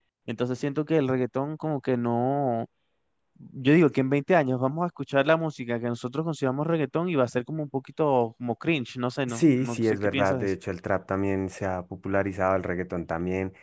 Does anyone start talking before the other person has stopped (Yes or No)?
Yes